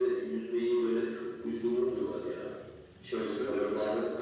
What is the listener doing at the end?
listening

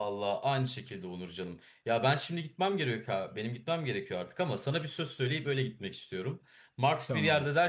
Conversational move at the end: listening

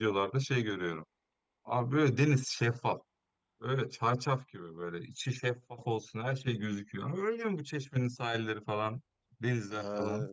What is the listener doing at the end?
taking over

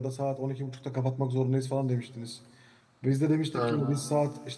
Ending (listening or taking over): listening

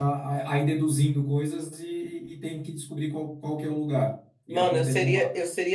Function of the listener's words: taking over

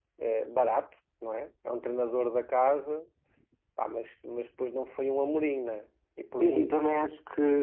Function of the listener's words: taking over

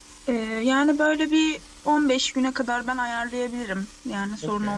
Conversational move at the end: taking over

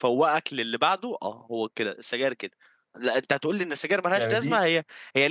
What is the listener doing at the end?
listening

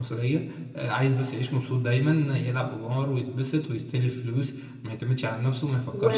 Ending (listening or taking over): taking over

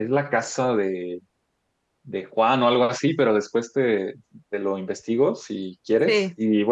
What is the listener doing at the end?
listening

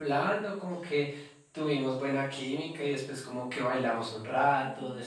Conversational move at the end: listening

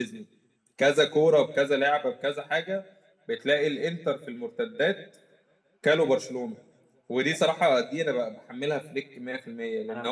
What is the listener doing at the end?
listening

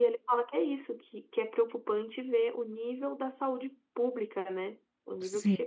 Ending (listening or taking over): listening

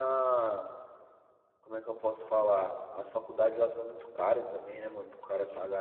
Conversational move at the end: listening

